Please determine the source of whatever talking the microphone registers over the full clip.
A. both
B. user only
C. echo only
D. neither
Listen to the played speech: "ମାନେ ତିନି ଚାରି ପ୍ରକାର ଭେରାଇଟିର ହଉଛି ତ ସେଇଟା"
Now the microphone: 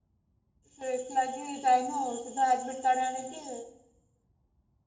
B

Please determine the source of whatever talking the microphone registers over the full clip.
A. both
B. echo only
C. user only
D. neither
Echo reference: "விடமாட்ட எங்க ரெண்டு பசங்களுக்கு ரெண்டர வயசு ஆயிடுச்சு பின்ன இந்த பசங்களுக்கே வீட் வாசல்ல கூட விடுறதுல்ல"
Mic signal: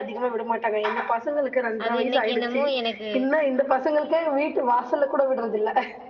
A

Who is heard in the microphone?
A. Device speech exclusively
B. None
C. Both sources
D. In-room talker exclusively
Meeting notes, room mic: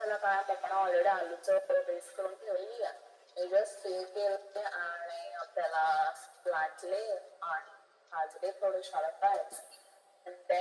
A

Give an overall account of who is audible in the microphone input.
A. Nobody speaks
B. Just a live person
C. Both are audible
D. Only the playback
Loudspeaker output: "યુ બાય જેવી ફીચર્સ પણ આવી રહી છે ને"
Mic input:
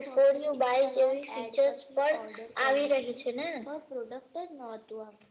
C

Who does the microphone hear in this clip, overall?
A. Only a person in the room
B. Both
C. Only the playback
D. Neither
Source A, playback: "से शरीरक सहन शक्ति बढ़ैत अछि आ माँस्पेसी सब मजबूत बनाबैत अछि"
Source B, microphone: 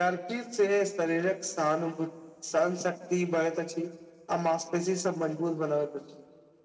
C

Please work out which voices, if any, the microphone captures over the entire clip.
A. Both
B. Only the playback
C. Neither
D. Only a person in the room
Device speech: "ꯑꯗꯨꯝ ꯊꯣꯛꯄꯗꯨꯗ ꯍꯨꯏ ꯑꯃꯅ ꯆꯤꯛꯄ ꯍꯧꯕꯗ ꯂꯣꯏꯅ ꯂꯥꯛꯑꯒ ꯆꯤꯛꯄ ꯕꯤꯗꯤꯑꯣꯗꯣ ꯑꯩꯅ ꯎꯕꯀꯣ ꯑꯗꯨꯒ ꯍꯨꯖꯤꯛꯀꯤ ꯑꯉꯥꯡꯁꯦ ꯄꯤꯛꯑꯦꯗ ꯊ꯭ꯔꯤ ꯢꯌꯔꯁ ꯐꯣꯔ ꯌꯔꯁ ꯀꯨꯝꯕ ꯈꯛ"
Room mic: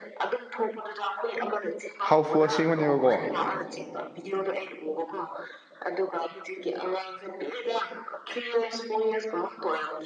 A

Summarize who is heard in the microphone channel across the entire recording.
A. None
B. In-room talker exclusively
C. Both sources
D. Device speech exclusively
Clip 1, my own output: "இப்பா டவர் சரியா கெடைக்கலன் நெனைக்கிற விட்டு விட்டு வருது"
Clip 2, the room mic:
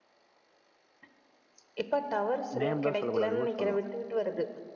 C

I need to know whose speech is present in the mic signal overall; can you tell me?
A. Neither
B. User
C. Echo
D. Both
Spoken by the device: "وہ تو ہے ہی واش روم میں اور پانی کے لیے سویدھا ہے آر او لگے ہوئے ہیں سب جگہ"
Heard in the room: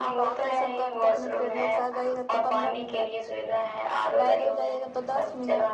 D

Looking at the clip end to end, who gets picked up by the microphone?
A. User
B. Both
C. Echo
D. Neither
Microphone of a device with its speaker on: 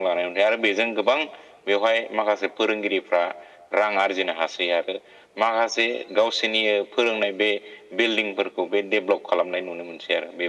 C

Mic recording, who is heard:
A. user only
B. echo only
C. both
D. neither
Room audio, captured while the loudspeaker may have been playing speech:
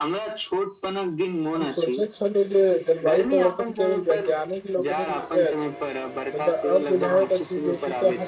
C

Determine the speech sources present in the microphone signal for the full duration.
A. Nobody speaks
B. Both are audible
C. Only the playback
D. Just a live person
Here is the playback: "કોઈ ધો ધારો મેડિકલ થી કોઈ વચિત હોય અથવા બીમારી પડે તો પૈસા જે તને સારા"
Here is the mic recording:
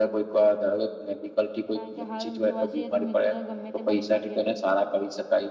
B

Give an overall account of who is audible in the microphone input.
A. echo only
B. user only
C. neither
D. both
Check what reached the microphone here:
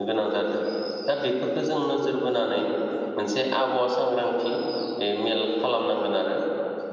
B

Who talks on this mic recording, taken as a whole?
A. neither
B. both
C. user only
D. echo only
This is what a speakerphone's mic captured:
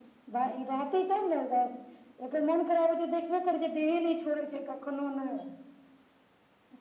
D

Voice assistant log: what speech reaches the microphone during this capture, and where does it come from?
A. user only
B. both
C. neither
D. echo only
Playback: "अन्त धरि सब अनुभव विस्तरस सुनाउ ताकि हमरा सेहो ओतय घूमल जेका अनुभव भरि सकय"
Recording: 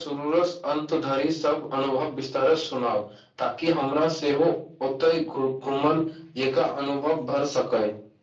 D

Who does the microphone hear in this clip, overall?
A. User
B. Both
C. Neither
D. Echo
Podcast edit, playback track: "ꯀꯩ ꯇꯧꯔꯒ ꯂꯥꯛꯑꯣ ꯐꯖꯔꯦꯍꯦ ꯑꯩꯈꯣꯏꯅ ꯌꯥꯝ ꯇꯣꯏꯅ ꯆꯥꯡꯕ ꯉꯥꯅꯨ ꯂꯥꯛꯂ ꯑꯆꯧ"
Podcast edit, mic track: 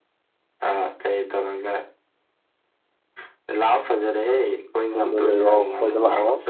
B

